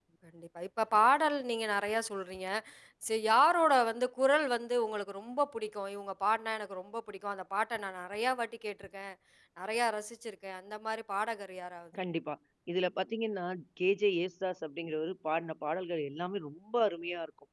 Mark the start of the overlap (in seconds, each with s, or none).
none